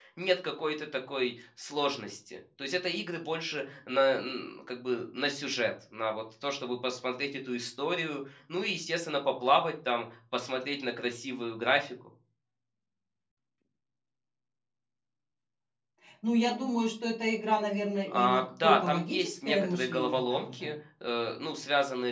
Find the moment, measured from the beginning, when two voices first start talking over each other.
18.1 s

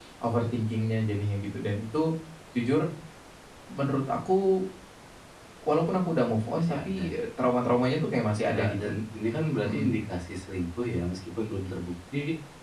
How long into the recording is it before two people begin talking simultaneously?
6.6 s

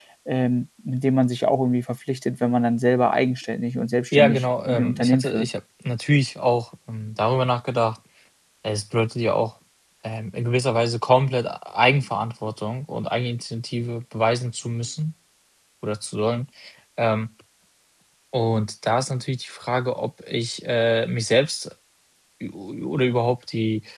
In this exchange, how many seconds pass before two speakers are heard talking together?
4.1 s

